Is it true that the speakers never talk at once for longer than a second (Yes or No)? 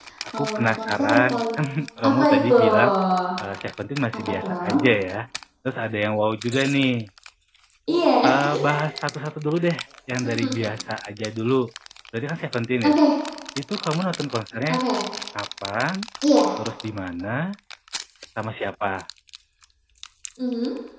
No